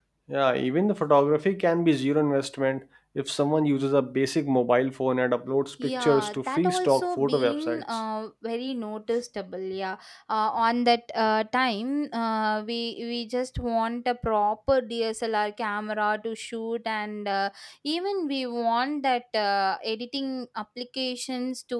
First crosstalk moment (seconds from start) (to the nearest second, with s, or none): 6 s